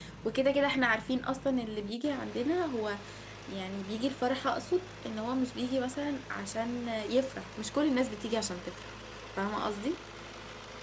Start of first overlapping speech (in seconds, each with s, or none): none